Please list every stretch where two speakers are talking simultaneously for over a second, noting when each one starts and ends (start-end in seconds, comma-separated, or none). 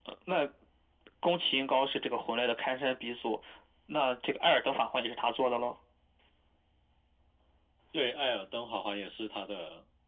none